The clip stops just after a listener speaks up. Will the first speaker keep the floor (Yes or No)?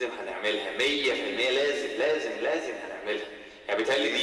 Yes